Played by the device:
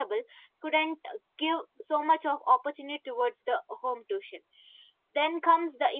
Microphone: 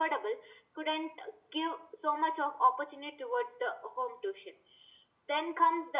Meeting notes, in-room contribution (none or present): none